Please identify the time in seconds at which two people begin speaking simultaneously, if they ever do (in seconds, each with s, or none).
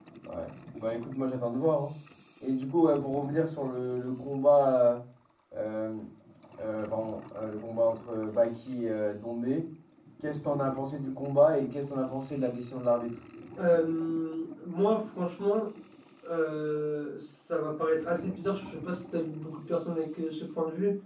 none